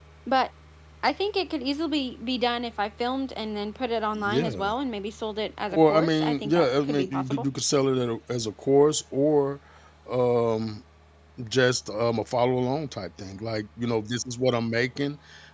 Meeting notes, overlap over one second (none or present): present